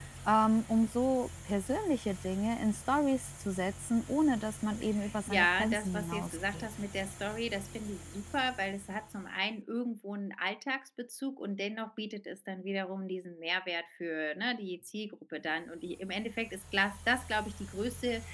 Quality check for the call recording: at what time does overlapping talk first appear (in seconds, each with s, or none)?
5.3 s